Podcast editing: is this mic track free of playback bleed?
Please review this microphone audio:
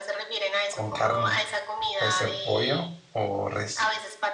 No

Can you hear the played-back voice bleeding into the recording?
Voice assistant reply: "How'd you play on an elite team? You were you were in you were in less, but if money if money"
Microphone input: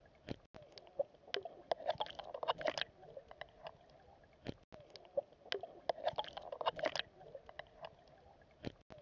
No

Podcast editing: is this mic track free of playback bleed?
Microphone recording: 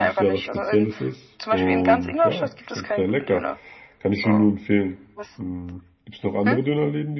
No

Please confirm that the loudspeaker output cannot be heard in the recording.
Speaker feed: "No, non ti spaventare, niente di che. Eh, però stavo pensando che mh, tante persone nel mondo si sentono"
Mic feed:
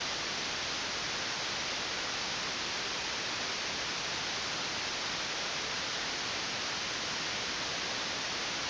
Yes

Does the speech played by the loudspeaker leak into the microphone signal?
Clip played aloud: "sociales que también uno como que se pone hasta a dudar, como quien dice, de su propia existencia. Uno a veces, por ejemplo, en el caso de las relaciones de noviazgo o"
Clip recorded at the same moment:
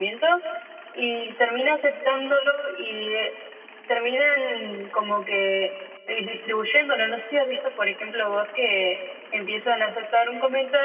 No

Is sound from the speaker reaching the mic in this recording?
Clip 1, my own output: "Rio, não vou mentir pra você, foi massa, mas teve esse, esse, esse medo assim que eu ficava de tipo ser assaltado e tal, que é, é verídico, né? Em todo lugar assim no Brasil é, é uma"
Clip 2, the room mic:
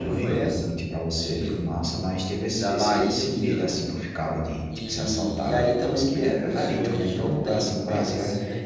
Yes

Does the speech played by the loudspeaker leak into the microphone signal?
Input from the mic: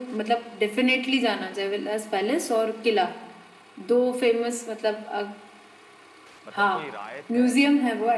Yes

